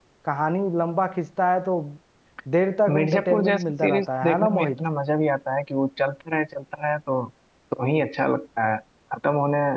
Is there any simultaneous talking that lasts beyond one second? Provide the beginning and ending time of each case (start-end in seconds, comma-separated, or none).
2.9-4.7